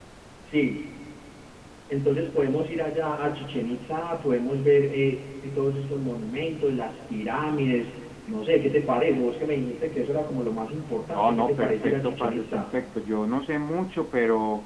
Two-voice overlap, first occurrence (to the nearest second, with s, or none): 11 s